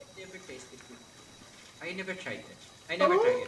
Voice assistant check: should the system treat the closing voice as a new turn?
Yes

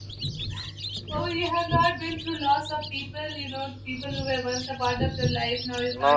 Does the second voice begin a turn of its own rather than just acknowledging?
Yes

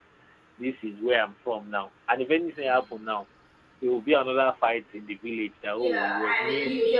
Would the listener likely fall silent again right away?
No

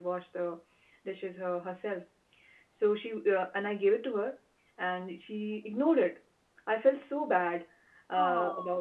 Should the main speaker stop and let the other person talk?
No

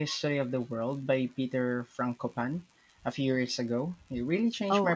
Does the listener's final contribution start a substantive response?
Yes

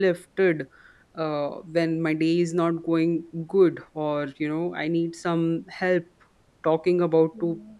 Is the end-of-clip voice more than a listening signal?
No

